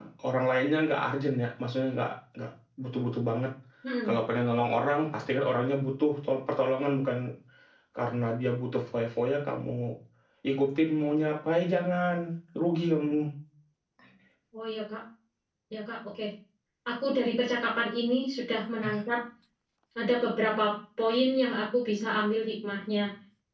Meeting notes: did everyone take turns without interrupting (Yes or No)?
Yes